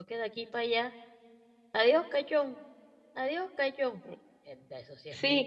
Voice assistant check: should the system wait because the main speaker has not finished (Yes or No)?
No